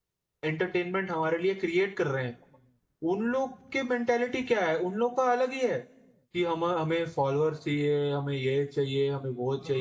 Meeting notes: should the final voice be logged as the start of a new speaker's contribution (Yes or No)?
Yes